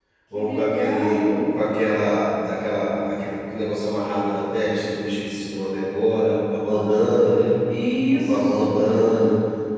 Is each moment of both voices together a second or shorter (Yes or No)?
No